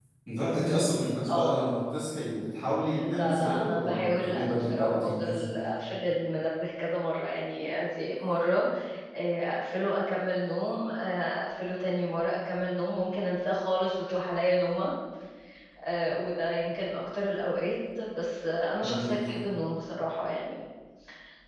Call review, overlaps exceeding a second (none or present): present